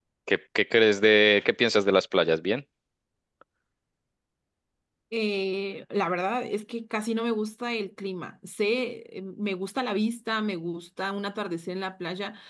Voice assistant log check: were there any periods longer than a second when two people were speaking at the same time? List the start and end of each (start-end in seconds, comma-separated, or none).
none